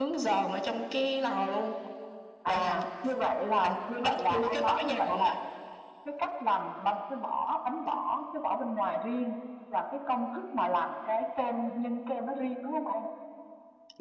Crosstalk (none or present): present